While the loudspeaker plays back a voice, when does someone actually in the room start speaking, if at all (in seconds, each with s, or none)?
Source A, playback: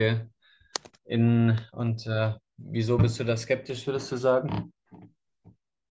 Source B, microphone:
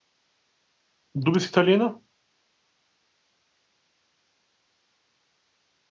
1.1 s